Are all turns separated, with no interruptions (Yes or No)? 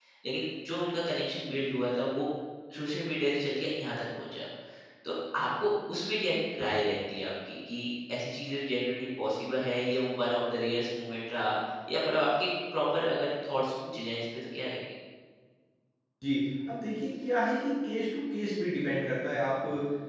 Yes